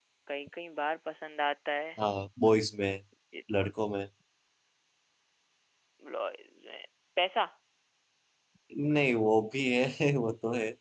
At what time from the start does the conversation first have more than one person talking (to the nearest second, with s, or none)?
none